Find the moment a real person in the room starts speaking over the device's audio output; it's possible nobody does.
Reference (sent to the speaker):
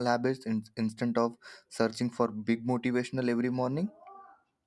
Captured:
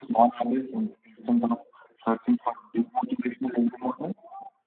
none

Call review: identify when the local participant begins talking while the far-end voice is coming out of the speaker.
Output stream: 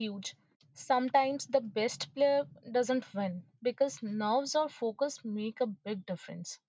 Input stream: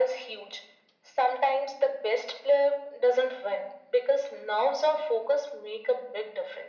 none

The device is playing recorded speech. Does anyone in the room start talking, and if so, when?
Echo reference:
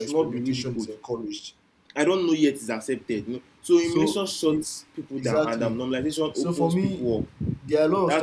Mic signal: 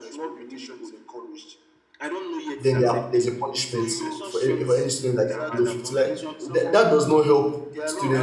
2.6 s

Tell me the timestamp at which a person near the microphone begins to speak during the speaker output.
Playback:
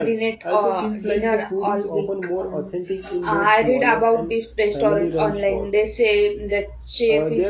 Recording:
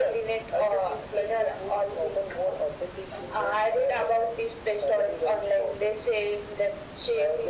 none

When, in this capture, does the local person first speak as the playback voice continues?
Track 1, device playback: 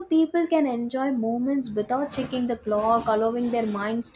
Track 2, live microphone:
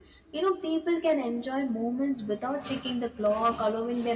none

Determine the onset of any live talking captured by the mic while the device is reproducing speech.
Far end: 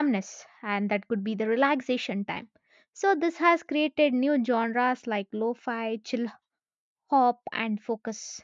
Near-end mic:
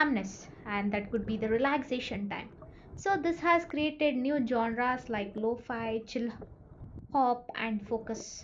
none

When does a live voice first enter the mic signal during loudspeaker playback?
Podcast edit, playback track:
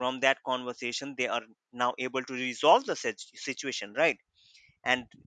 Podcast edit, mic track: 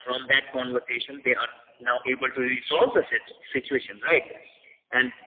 none

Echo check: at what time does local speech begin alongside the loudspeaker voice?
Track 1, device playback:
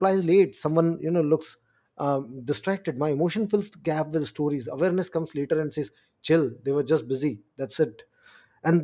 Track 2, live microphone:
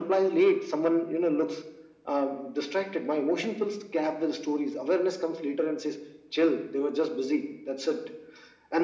none

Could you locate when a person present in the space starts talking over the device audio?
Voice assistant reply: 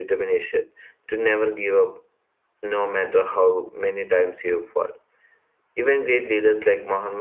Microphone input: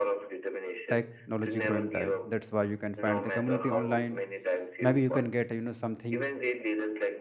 0.9 s

